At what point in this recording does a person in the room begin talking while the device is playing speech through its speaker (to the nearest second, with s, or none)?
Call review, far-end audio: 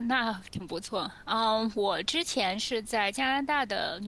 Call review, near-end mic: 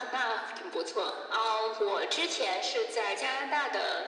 none